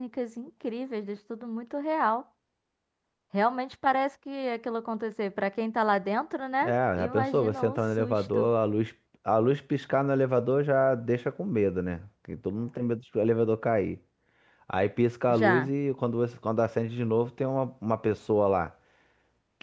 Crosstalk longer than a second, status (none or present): present